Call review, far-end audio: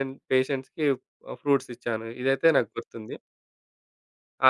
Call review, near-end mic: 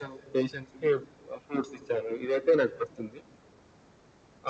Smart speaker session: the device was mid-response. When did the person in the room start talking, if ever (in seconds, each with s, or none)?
none